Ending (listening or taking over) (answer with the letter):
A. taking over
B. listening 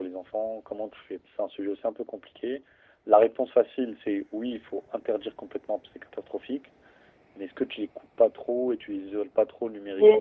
A